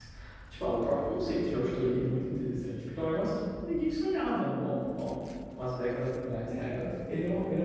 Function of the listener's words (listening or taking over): taking over